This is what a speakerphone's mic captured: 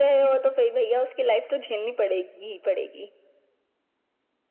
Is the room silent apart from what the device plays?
Yes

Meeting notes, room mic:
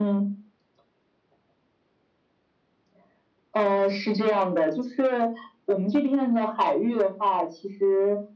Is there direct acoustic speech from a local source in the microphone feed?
No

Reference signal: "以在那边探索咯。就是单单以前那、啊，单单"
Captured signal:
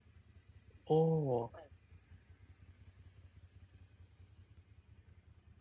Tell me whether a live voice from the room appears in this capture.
Yes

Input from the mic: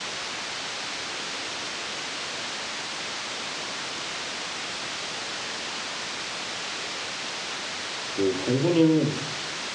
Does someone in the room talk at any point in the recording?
Yes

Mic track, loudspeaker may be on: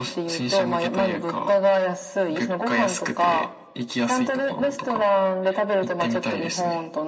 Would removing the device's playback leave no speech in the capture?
Yes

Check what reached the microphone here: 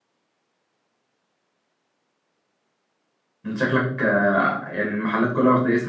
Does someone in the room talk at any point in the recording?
Yes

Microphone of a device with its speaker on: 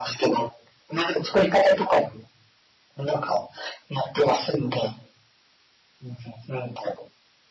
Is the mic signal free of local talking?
Yes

